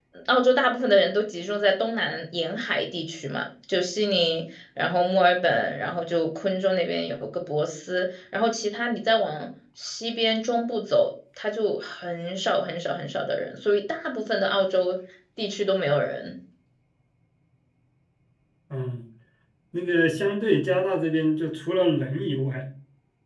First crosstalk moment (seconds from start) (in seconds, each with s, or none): none